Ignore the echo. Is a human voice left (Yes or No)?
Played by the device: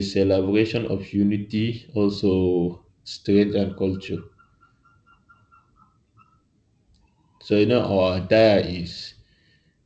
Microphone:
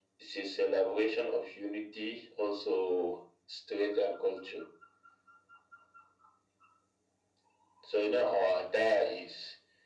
No